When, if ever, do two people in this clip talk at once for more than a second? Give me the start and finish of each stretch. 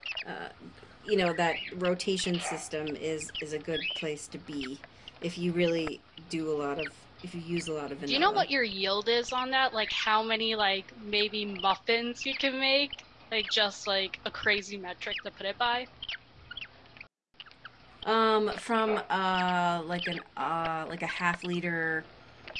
none

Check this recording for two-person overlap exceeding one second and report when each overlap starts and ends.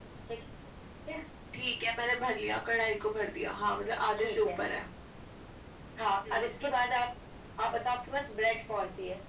none

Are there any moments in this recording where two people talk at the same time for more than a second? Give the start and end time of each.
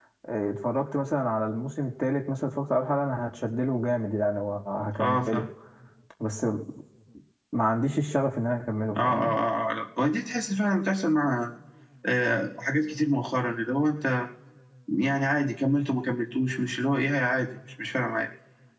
none

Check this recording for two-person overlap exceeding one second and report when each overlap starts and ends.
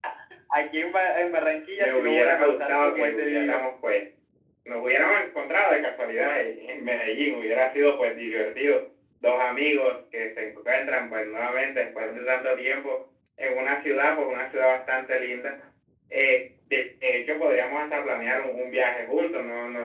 1.8-3.6

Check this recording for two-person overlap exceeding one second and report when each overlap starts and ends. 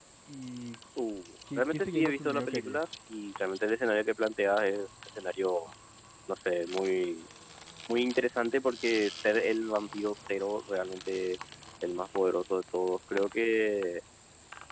1.6-2.9

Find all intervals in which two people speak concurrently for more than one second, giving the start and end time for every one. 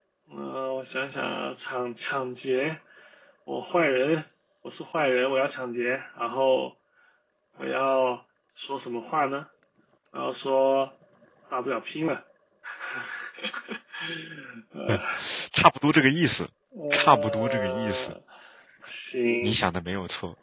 16.9-18.1

